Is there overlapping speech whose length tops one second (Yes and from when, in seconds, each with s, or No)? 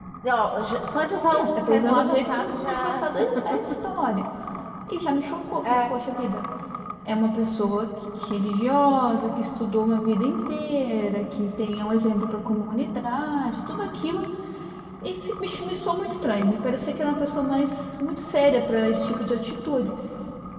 Yes, from 1.3 s